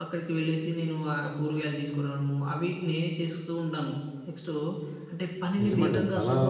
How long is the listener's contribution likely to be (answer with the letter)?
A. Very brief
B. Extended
B